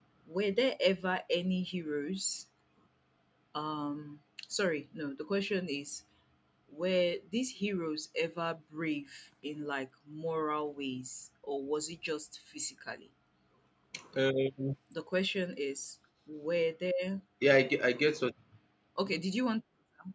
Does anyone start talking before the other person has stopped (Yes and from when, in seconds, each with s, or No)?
No